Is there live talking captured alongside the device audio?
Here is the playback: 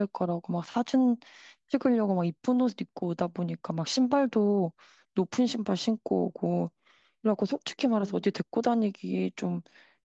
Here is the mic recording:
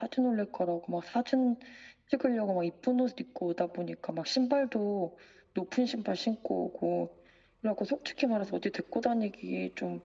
No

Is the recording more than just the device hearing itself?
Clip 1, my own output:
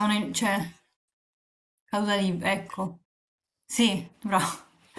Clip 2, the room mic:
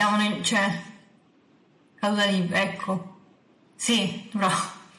No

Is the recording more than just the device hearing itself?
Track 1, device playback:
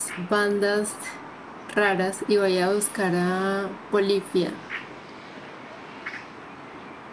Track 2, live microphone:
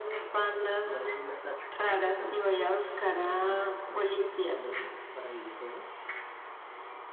Yes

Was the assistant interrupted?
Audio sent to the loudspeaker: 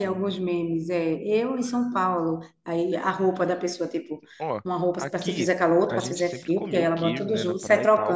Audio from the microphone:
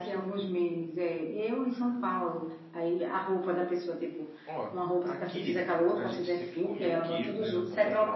No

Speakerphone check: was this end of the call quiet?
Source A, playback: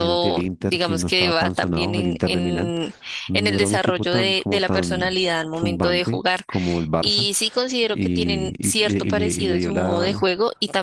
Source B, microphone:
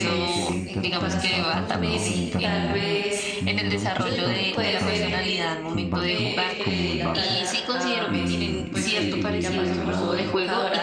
No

